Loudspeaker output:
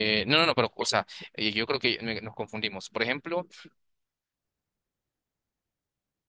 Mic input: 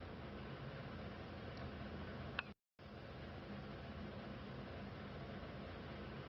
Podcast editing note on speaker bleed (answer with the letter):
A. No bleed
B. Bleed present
A